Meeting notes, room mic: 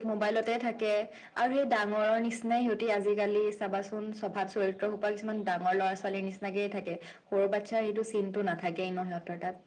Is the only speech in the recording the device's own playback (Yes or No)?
Yes